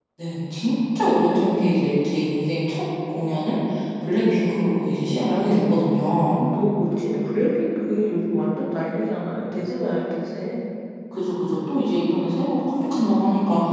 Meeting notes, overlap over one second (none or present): none